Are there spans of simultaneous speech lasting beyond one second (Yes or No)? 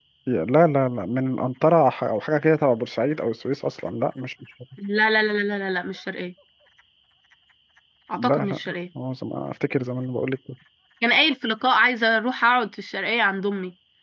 No